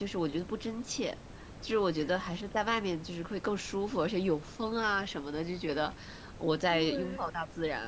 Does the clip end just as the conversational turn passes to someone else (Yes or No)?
No